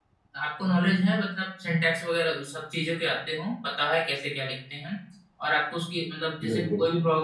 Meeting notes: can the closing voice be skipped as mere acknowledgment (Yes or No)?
Yes